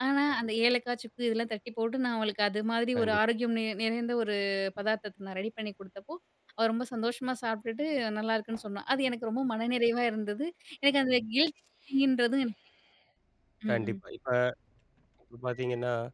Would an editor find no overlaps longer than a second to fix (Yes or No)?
Yes